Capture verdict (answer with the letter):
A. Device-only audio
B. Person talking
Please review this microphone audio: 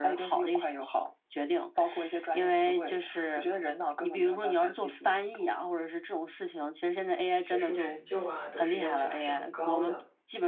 B